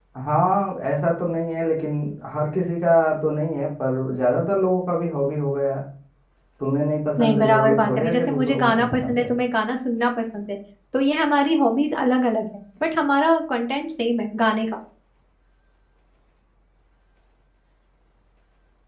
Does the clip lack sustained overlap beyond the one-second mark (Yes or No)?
No